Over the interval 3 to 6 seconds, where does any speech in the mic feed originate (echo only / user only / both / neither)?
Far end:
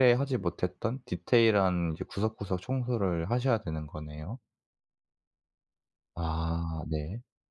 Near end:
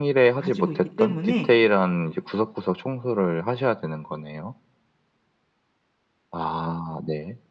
echo only